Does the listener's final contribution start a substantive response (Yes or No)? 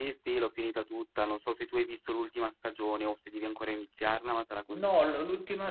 Yes